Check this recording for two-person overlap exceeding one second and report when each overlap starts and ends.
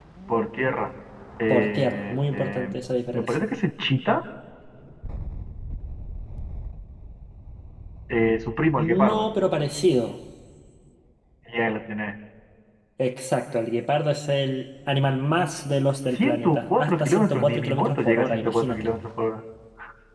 1.5-2.8, 16.1-18.9

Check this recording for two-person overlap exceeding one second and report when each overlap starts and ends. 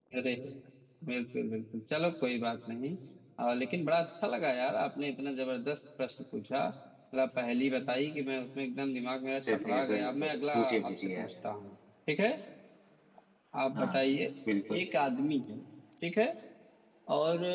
9.5-11.3

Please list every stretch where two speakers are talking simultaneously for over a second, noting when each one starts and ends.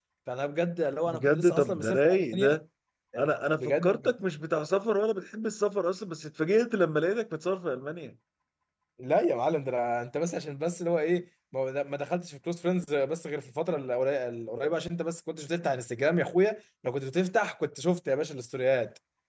1.1-2.6

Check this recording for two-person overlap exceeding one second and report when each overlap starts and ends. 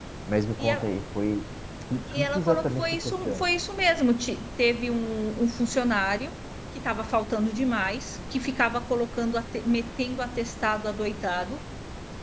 2.1-3.5

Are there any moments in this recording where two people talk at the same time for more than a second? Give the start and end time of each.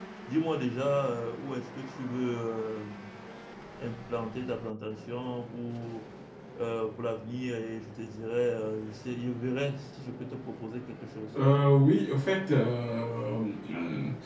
none

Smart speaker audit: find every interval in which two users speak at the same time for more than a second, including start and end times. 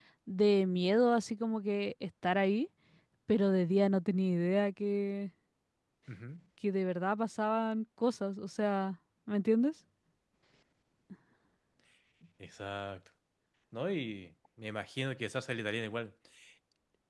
none

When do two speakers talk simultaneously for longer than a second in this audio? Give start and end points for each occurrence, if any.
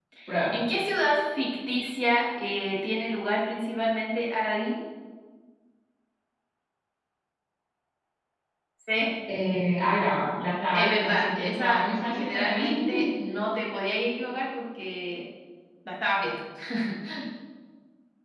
10.7-12.7

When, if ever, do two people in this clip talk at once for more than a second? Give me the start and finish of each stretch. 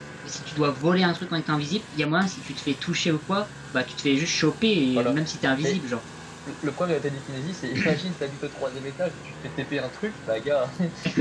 none

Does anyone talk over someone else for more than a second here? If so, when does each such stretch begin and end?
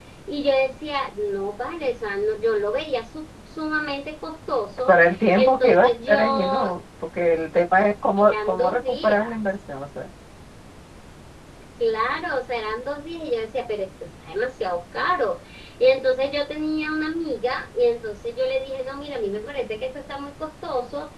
5.3-6.6, 8.2-9.4

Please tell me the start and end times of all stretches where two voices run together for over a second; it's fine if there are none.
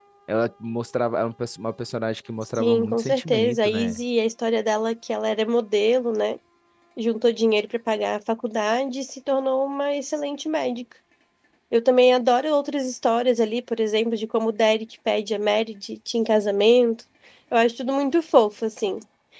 2.6-4.0

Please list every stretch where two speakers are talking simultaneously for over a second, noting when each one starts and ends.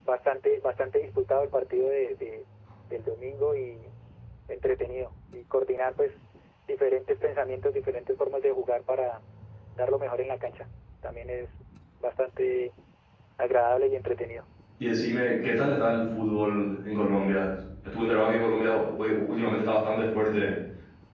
none

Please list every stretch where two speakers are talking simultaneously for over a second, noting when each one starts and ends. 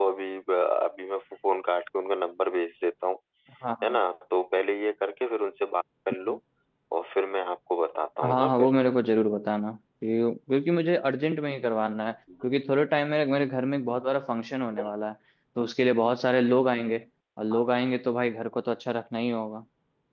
none

